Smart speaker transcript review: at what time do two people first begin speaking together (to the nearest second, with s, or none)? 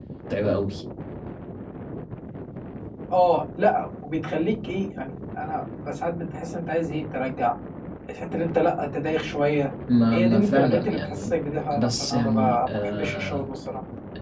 10 s